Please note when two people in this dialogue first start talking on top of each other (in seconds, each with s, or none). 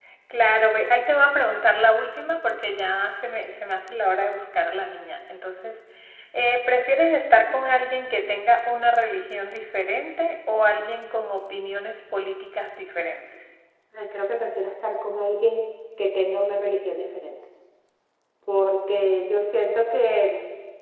none